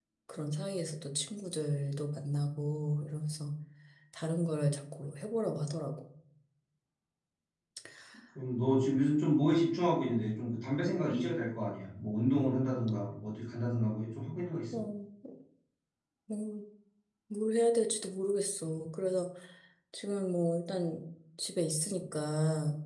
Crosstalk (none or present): none